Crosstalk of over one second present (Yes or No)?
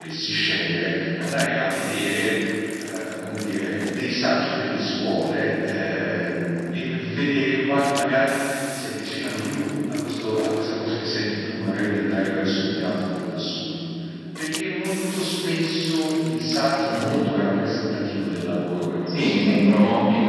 Yes